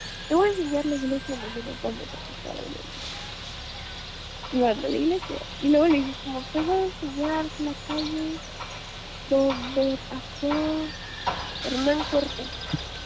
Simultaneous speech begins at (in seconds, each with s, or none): none